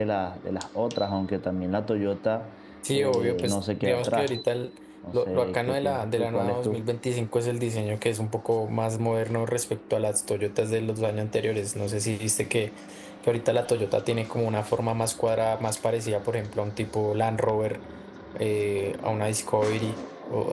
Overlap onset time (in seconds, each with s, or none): 2.9 s